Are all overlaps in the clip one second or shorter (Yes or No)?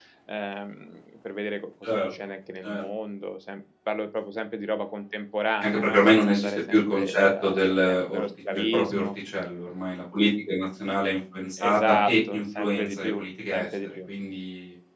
No